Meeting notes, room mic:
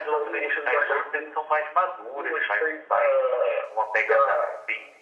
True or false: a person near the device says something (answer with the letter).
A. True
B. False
B